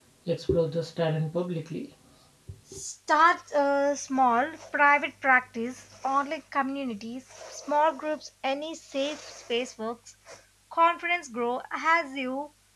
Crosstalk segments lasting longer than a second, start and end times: none

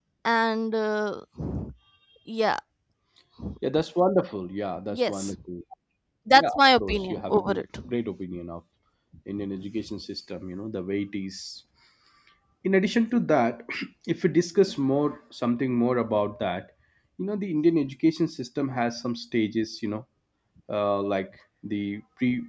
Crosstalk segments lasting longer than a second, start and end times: 6.4-7.6

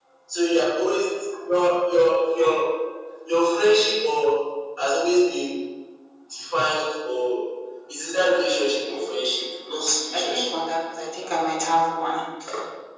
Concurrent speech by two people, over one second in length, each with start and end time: 8.9-10.4

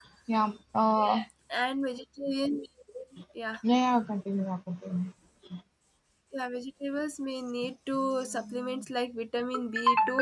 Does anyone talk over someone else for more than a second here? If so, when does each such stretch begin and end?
none

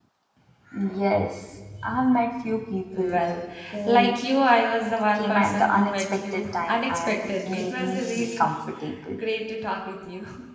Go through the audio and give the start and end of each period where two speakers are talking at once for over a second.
5.2-8.5

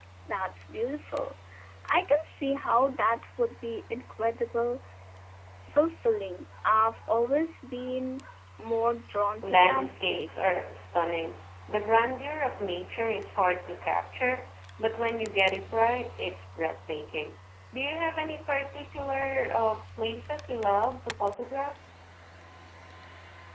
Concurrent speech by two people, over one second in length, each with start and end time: 9.4-10.6

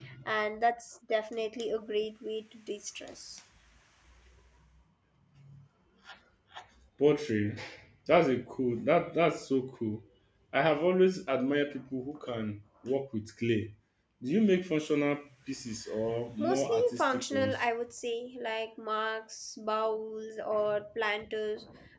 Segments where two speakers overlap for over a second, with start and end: 16.4-17.6

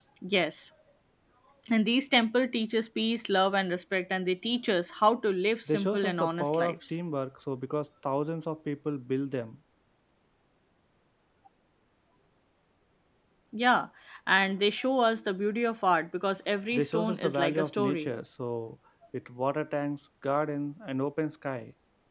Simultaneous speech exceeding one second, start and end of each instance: 5.7-6.9, 16.7-18.1

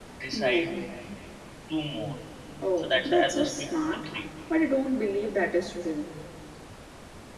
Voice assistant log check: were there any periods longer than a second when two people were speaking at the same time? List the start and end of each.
2.8-4.1

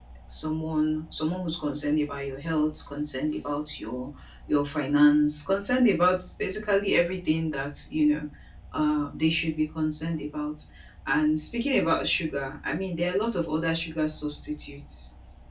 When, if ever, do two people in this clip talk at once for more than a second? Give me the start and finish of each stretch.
none

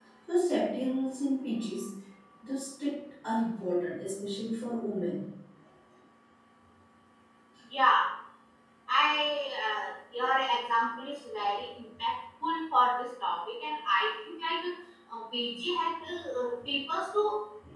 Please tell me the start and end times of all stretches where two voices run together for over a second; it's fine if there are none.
none

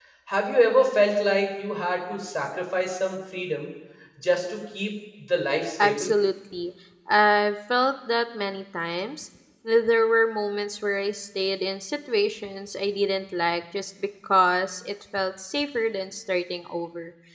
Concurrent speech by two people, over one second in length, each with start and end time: none

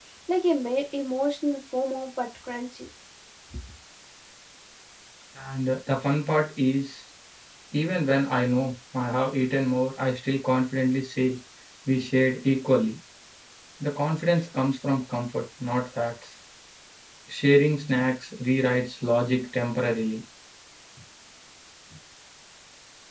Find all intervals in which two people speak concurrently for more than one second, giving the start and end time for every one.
none

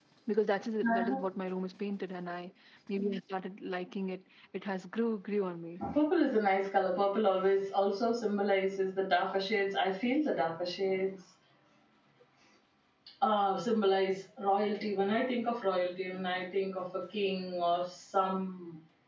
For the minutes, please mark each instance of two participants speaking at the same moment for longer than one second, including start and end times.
none

